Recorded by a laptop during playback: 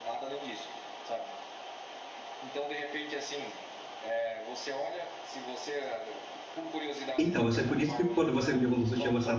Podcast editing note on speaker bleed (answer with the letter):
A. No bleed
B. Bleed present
B